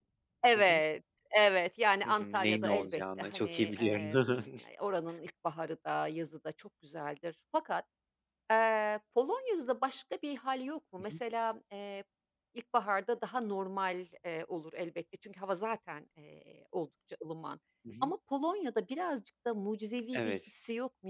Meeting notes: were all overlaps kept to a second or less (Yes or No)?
No